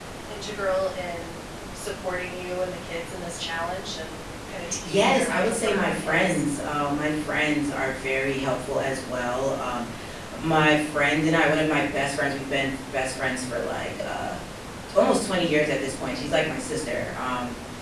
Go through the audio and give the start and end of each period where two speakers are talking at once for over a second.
4.8-6.4

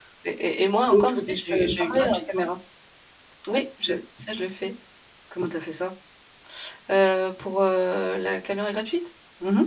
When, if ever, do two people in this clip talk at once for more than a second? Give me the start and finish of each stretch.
0.9-2.4

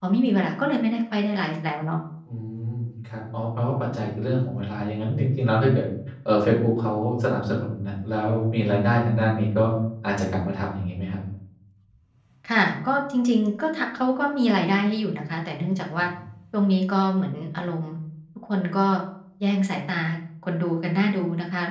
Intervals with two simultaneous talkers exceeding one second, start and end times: none

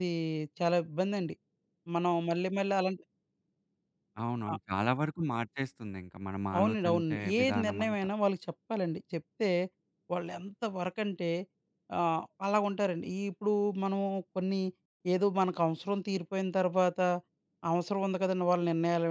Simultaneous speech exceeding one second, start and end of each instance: 6.6-8.0

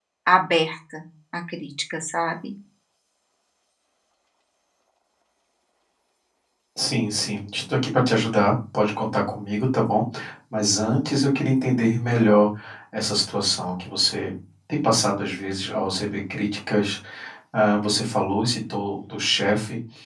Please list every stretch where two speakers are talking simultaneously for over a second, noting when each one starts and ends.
none

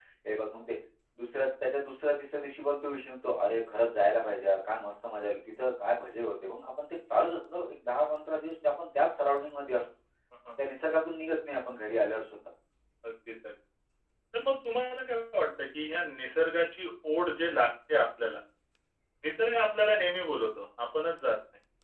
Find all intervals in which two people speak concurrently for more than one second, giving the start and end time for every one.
none

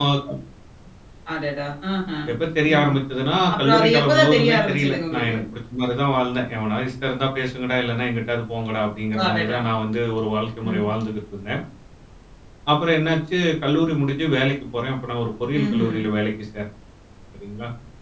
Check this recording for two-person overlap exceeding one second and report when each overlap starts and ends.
3.5-5.4

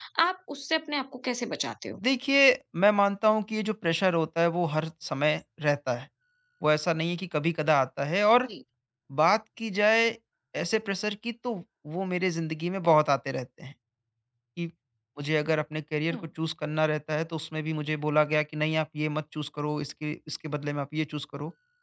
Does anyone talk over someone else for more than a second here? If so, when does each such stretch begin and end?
none

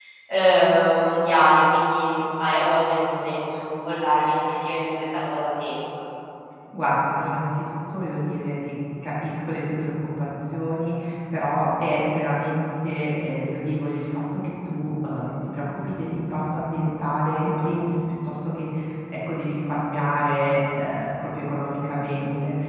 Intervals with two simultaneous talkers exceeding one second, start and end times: none

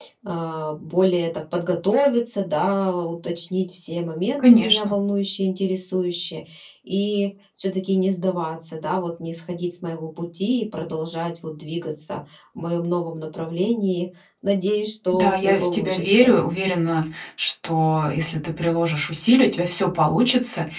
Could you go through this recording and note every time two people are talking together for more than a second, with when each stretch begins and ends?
15.1-16.3

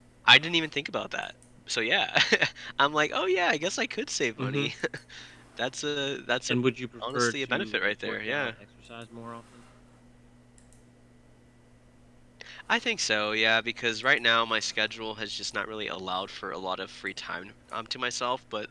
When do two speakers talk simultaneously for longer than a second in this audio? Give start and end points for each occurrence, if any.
7.1-8.5

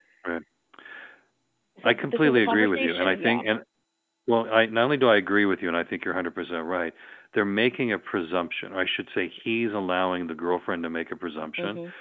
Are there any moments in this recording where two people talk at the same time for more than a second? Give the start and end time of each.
1.8-3.4

